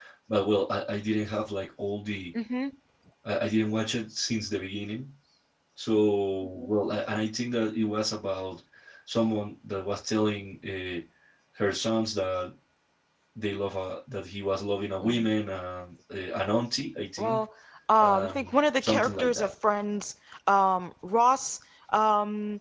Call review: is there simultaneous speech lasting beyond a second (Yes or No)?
Yes